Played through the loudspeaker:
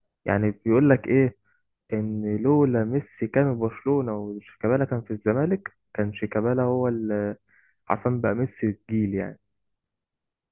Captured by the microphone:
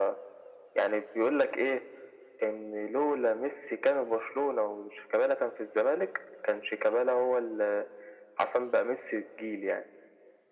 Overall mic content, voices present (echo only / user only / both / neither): echo only